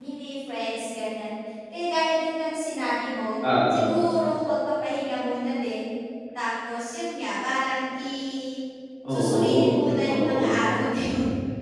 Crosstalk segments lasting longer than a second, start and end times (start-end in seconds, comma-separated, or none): 9.1-10.6